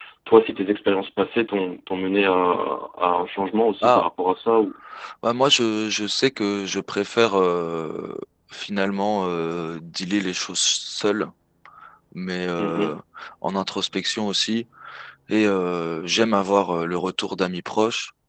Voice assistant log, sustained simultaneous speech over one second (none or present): none